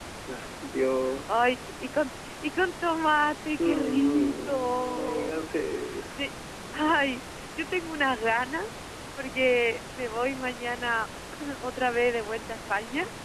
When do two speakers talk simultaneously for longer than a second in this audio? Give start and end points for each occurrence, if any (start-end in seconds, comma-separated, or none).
3.6-5.5